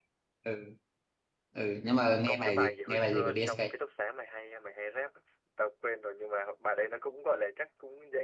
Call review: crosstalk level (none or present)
present